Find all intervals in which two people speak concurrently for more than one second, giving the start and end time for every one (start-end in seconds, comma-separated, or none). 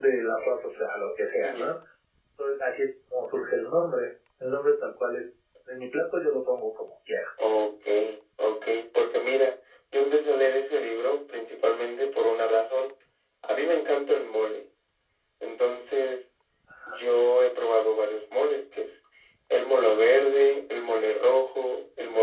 none